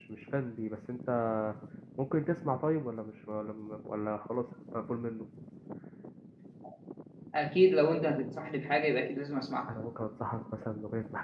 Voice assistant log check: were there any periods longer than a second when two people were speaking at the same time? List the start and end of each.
none

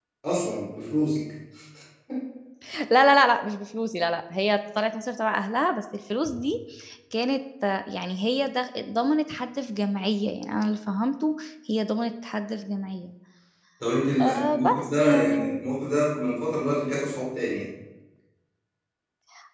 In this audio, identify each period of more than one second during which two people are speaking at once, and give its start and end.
14.2-15.6

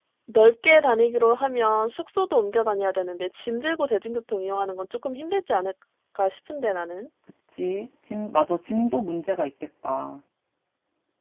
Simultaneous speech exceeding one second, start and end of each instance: none

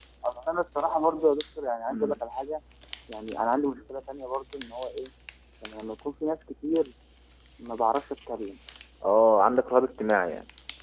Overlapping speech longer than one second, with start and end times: none

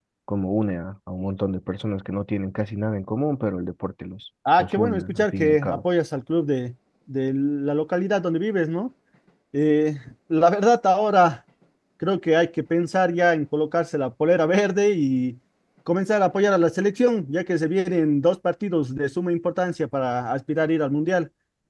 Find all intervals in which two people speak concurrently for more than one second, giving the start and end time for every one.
4.6-5.8

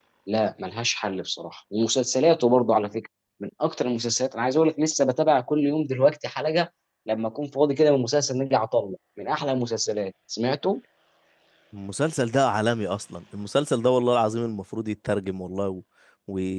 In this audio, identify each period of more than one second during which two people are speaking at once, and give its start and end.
none

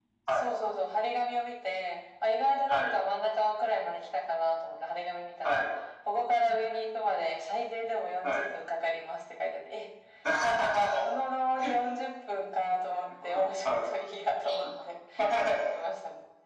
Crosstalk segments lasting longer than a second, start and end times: none

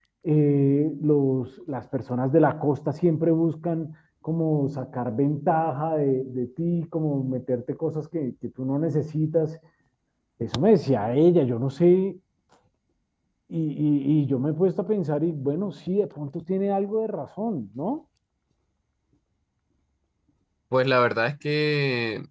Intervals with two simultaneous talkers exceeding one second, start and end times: none

